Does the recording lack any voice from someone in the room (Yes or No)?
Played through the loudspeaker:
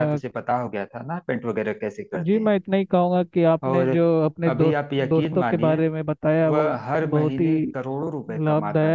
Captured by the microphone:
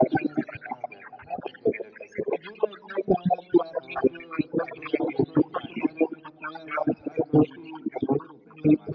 Yes